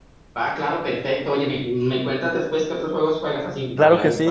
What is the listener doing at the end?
taking over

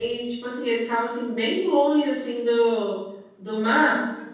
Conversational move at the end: listening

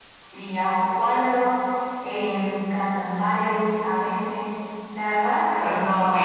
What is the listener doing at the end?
taking over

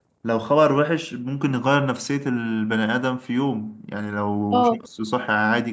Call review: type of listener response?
listening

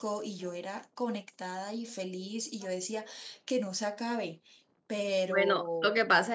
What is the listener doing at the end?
taking over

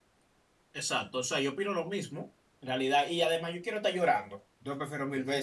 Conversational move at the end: listening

